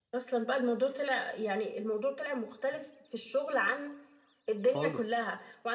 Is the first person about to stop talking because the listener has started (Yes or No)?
No